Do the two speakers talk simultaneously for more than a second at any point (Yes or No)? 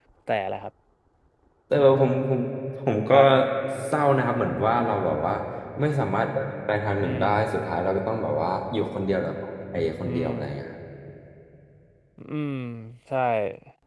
No